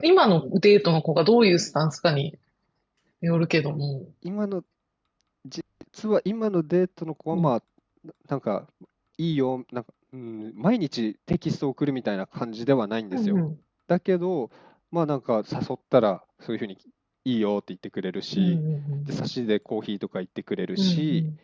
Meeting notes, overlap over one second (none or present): none